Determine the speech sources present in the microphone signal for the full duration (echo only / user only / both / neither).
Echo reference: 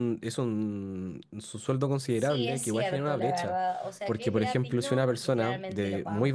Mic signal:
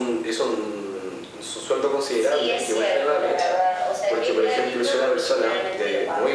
echo only